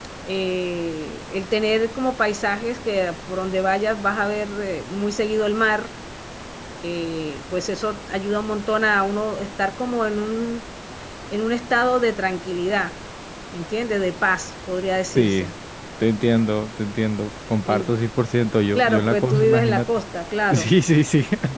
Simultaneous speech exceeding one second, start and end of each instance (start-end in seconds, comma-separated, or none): 18.8-20.0